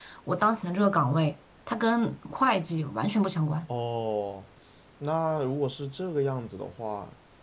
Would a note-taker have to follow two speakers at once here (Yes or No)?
No